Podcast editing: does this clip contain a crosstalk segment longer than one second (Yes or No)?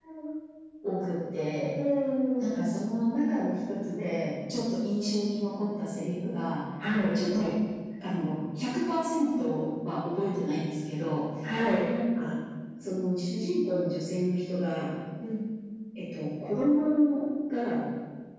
No